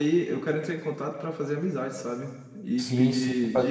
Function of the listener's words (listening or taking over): taking over